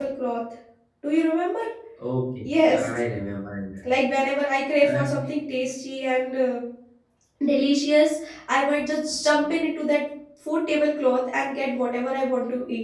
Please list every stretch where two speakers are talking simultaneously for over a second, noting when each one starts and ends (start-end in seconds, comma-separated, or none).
none